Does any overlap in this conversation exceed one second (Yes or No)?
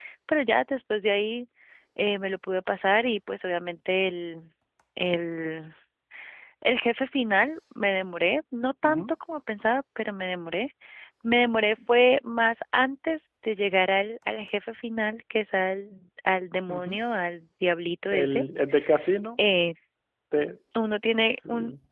No